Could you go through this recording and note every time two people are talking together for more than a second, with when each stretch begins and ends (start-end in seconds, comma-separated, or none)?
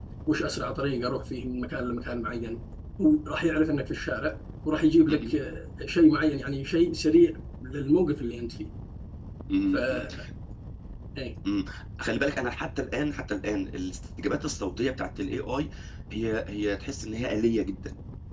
none